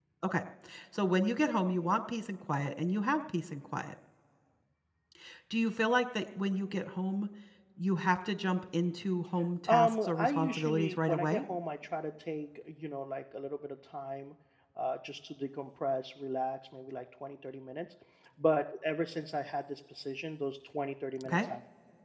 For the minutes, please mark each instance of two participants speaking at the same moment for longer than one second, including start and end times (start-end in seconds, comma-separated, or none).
9.7-11.4